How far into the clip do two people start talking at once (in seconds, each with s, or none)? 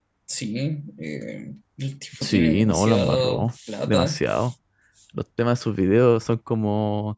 2.2 s